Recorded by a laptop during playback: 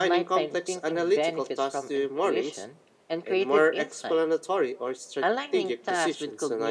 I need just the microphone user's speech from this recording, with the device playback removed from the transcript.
none

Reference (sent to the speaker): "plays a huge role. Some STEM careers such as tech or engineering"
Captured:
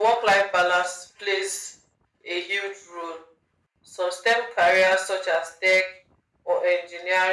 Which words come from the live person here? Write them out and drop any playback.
none

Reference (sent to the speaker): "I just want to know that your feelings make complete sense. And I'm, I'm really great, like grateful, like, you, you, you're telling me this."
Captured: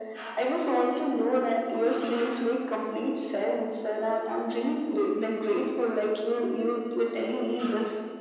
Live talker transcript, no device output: none

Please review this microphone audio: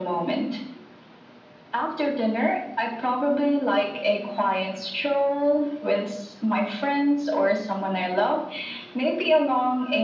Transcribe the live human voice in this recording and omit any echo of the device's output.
none

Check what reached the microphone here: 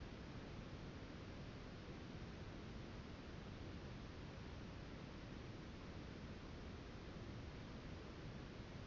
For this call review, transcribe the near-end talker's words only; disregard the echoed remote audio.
none

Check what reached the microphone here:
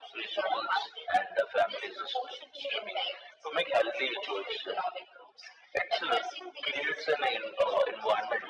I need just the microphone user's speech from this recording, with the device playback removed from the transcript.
none

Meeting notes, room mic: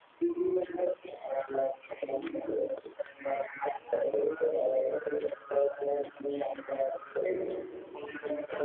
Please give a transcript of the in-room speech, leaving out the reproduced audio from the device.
none

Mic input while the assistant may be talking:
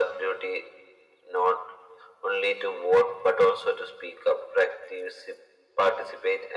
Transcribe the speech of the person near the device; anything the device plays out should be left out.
none

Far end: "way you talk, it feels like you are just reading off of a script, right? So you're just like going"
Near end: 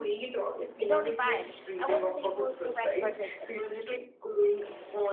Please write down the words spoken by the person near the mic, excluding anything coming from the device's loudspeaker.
It's only five. I wasn't able to record with

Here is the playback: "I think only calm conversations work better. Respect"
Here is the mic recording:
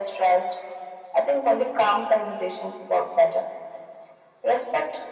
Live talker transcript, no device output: none

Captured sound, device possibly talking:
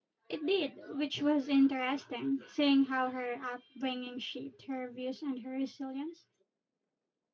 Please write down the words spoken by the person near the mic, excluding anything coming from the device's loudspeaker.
It did, which was interesting, seeing how her upbringing shaped her views and her resilience.

